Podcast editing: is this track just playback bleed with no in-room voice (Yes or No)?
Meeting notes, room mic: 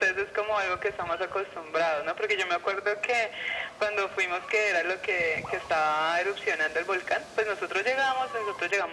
Yes